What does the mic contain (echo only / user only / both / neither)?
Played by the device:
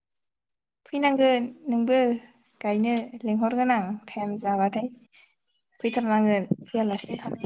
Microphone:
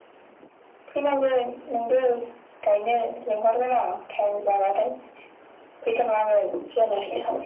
echo only